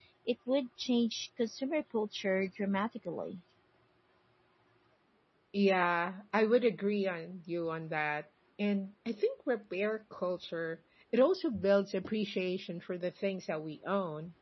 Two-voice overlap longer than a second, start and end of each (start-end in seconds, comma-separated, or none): none